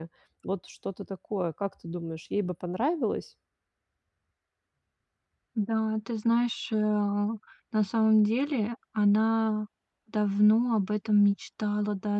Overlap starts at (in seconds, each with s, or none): none